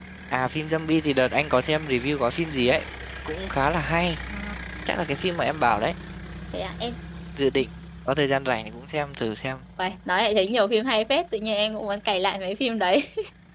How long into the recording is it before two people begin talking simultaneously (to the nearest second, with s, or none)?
none